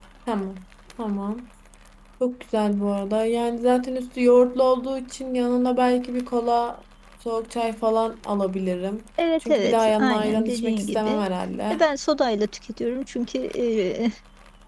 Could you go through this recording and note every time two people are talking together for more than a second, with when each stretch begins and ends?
9.4-11.2

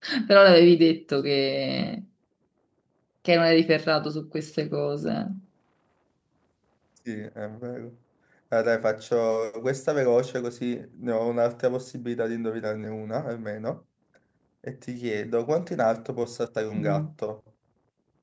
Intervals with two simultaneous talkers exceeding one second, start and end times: none

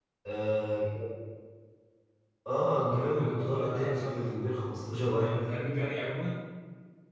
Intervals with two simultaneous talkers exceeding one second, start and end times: 2.6-4.1

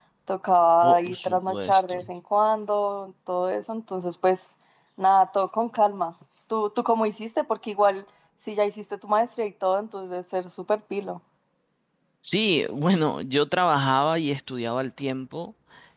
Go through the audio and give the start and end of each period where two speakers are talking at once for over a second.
0.8-2.1

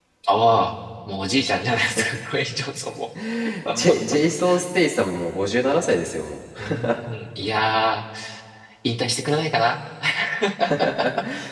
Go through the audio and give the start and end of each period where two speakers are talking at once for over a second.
none

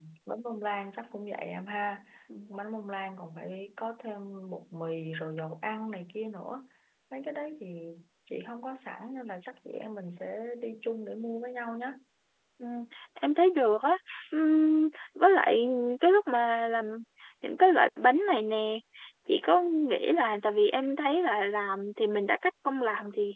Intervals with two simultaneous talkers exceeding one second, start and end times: none

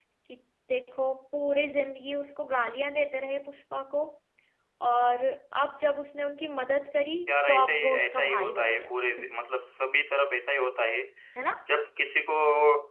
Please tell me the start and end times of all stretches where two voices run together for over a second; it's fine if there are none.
7.3-8.9

